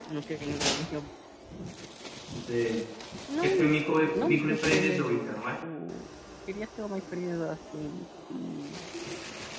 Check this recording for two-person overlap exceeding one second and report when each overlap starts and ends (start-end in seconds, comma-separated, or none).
4.1-5.5